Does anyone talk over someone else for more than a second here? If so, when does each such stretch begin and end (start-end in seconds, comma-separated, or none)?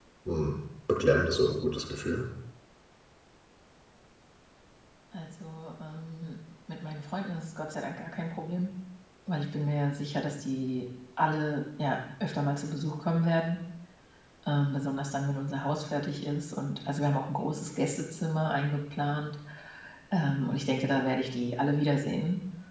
none